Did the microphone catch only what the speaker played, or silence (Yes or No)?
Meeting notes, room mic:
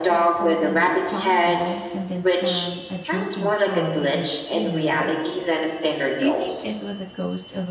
No